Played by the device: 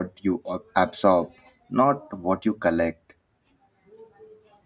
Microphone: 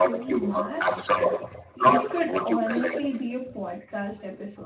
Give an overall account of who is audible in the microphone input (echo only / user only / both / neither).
both